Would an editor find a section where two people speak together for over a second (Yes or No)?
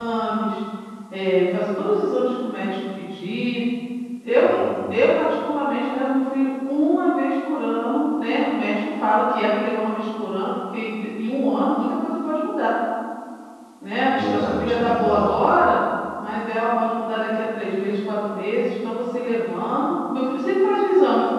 Yes